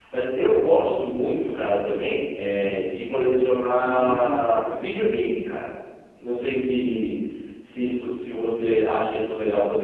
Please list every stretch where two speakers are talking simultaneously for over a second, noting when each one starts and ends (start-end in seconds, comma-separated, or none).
3.8-5.3